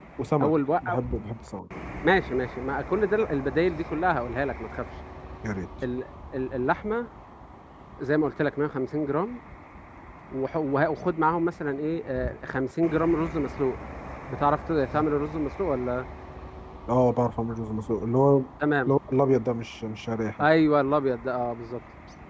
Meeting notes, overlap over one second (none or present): none